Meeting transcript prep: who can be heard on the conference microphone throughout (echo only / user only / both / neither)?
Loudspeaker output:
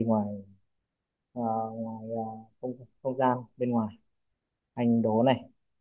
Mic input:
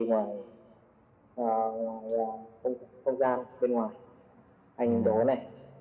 both